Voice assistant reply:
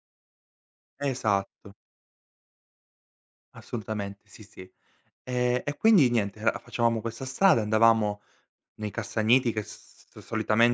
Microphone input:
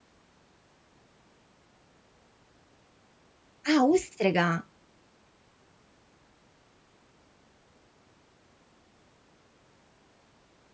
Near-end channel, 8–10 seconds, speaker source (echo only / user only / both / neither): neither